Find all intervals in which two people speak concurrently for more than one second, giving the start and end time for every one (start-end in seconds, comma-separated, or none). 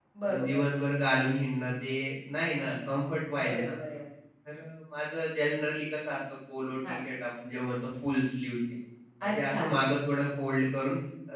none